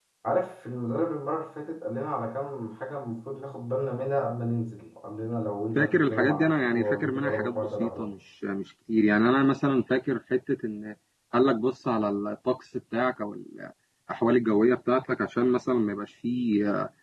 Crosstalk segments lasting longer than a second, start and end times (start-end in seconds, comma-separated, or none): 5.8-8.1